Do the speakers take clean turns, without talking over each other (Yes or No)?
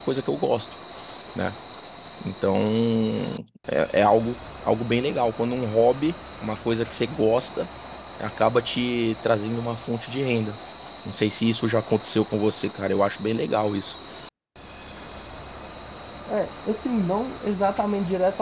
Yes